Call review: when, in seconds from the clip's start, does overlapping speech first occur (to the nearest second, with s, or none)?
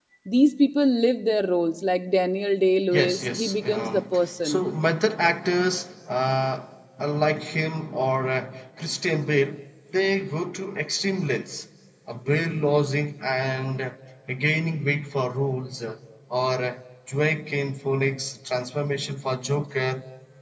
3 s